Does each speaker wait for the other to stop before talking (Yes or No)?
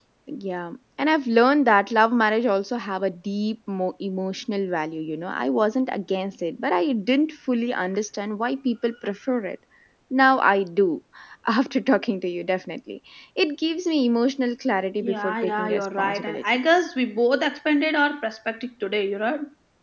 No